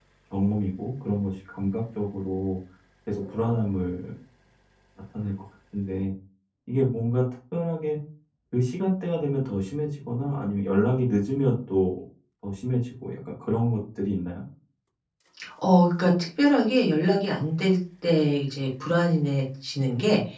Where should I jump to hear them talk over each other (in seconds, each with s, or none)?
none